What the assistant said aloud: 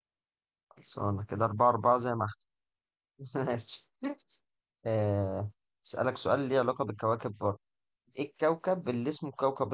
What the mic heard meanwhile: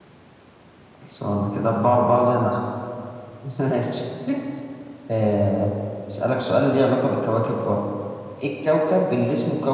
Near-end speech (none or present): none